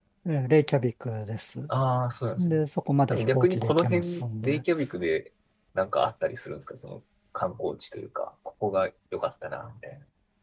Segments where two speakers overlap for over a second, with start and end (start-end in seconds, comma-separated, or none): 3.1-4.6